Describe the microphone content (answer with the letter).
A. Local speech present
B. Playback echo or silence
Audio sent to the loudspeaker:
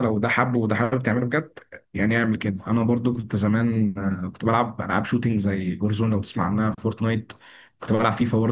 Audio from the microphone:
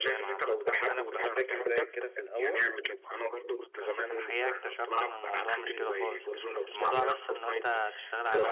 A